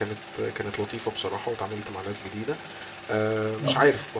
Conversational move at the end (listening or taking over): listening